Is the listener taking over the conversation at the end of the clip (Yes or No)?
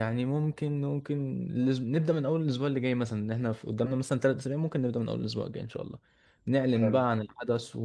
No